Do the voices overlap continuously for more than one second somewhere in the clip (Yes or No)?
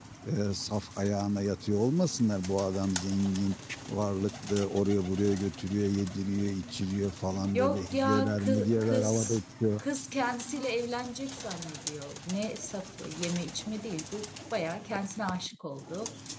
Yes